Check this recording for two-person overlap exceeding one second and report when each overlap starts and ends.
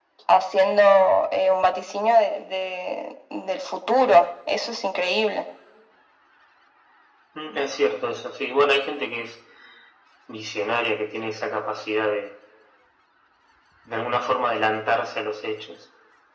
none

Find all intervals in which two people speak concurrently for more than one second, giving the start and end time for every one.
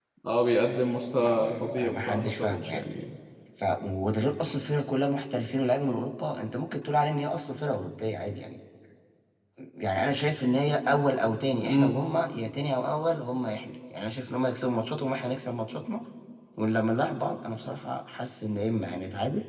1.2-2.8

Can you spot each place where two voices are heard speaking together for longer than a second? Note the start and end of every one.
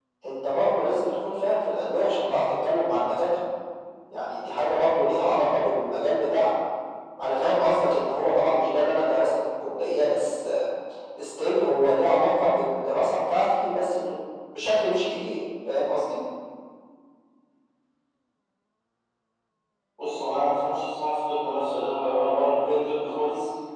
none

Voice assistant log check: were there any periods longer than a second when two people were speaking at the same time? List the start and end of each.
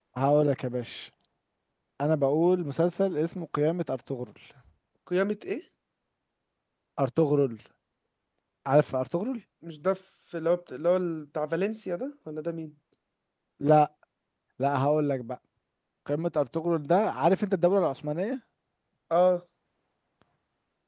none

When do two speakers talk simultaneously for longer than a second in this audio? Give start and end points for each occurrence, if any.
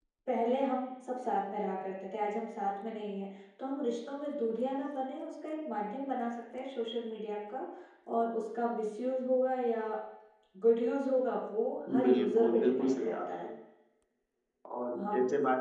12.0-13.5

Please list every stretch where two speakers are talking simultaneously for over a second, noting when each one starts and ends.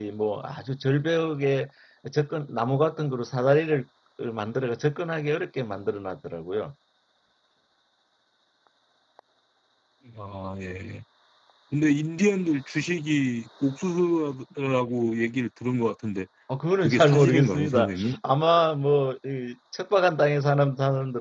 16.8-18.1

